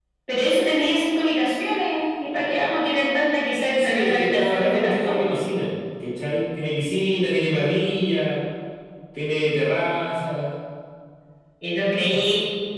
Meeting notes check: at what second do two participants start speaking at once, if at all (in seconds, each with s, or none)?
3.8 s